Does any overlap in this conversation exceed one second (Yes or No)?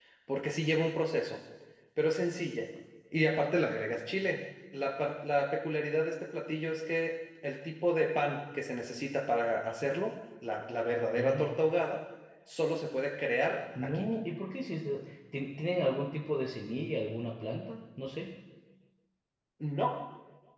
No